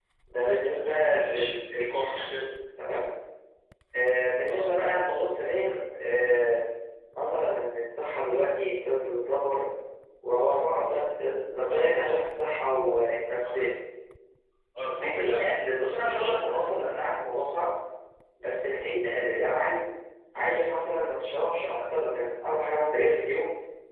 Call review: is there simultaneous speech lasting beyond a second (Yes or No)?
Yes